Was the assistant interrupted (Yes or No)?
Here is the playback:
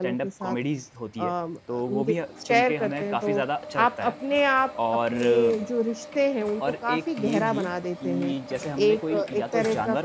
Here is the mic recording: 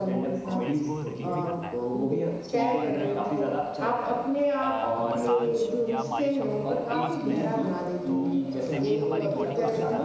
Yes